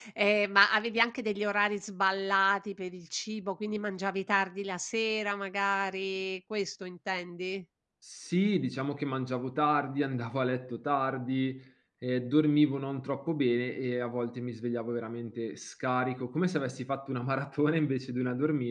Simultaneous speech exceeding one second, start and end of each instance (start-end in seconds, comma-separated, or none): none